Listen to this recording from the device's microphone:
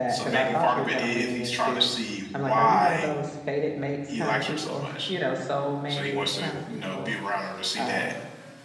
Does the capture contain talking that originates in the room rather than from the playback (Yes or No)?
Yes